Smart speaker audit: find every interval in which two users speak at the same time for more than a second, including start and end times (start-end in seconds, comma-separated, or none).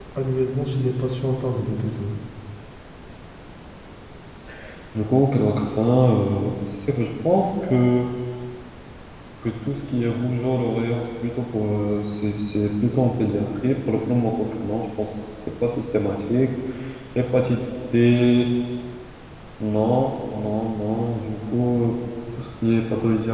none